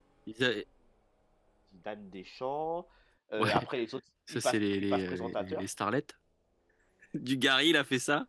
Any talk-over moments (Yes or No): Yes